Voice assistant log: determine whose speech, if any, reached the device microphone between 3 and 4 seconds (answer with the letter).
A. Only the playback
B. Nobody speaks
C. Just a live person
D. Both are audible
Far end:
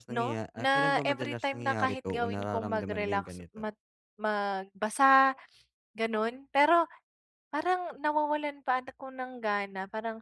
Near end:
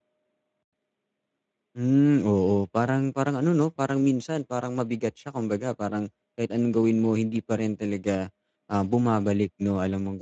C